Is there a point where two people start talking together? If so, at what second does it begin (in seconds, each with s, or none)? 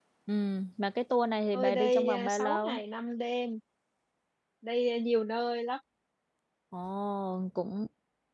1.5 s